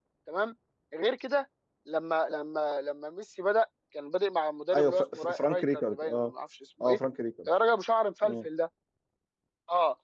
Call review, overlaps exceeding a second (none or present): present